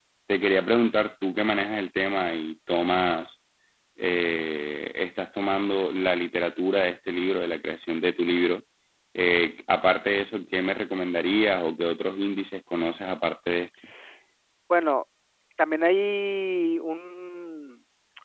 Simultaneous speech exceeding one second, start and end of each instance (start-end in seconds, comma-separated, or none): none